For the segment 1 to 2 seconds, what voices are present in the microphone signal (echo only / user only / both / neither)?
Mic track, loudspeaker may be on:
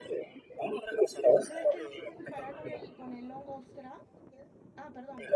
both